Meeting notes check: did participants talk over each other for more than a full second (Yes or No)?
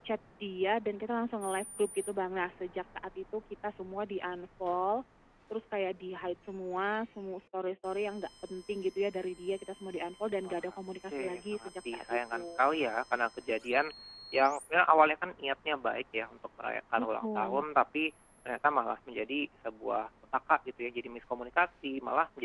Yes